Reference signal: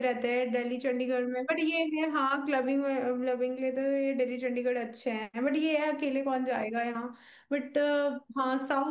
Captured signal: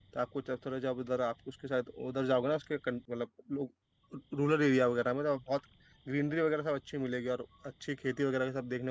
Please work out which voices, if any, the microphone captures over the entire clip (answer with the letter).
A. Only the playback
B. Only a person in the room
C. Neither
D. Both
B